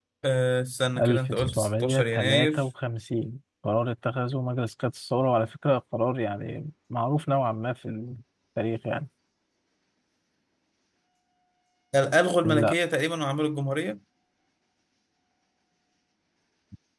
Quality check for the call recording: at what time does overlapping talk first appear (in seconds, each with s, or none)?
1.0 s